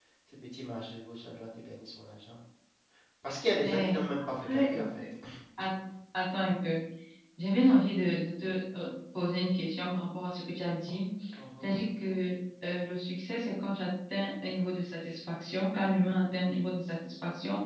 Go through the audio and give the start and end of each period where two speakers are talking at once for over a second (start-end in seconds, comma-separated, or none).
3.6-5.0